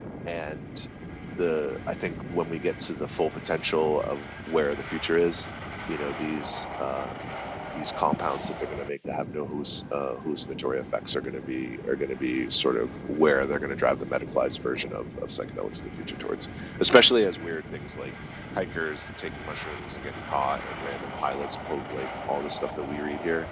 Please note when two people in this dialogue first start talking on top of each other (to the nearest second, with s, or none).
none